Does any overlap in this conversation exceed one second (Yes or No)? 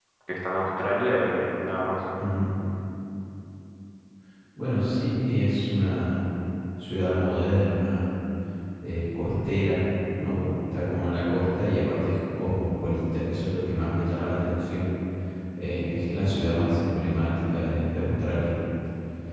No